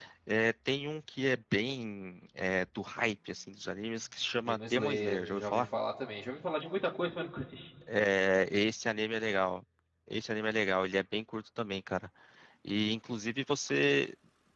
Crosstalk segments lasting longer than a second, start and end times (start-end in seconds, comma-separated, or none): 4.5-5.7